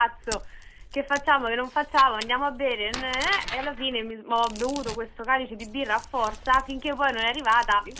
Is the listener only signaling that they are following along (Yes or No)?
Yes